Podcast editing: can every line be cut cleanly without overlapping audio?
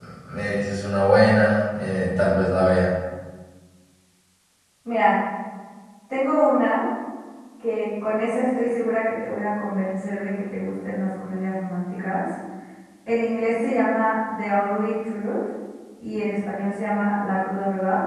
Yes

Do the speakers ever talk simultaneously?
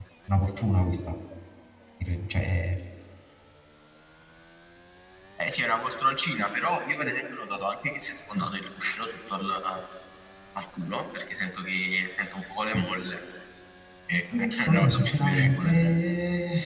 Yes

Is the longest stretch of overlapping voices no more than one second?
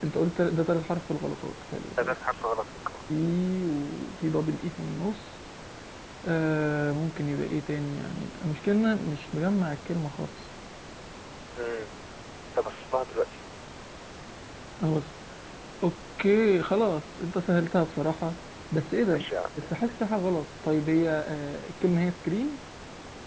Yes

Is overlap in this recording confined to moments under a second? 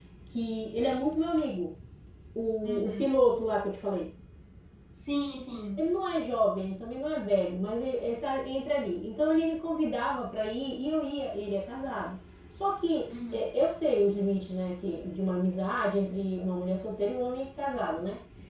Yes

